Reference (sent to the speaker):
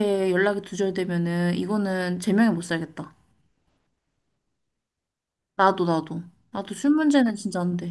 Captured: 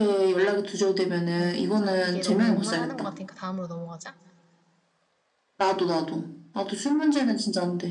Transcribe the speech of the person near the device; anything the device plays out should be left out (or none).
음, 자, 이게 너무 욕만 하는 것 같으니까 다음으로 넘어가자.